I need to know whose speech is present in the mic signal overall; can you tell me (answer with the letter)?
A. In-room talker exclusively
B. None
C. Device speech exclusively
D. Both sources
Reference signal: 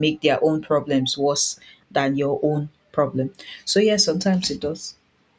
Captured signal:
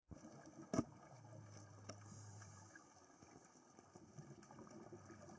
B